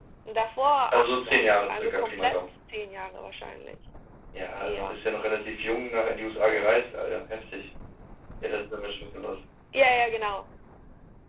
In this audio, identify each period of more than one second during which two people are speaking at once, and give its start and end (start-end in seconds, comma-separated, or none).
0.9-2.4